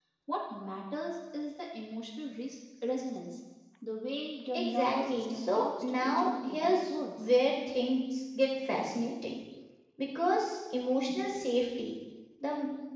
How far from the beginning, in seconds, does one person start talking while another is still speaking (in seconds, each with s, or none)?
4.5 s